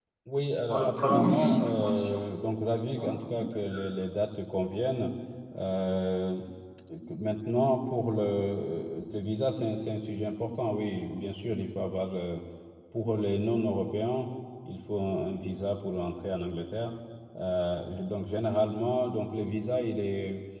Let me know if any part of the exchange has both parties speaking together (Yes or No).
Yes